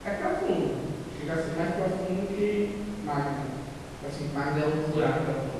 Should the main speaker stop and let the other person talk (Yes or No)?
Yes